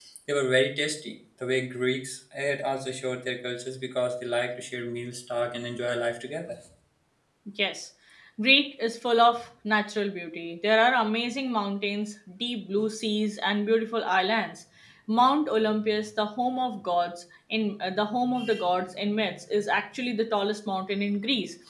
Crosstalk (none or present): none